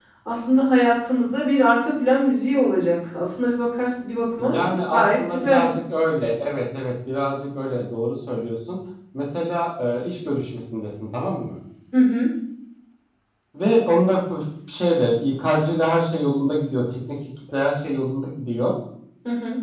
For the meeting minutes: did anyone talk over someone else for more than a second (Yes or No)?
Yes